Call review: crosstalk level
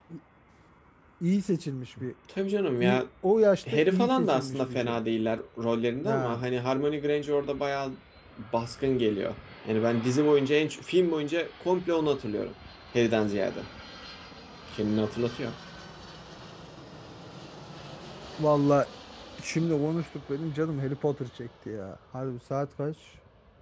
present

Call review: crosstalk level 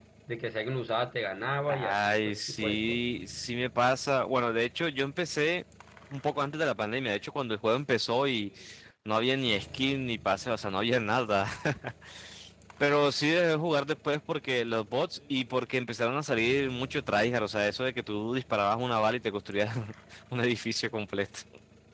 present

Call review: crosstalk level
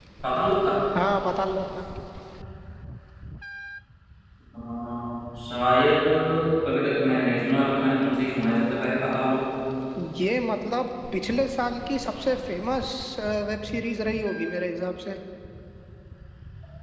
none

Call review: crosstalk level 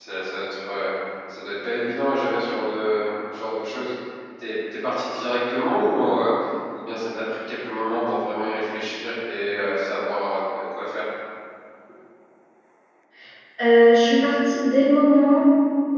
none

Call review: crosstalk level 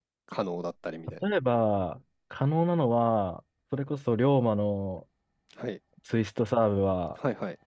none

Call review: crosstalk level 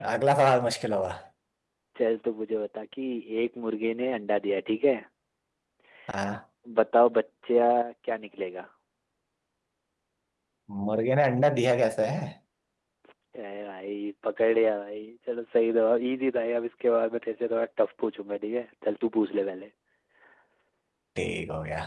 none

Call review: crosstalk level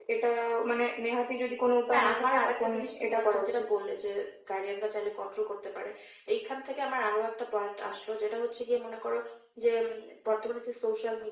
present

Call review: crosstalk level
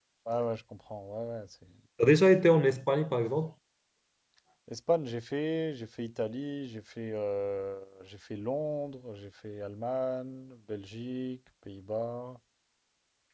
none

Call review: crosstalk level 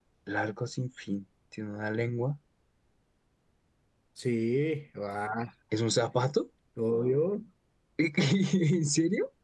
none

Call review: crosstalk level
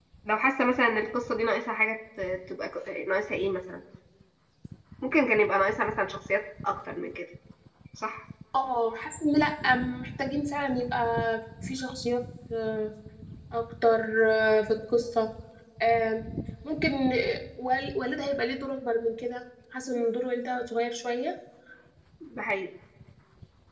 none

